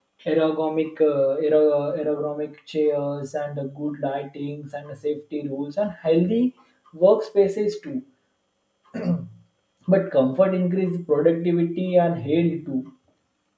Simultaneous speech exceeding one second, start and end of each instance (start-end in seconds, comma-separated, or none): none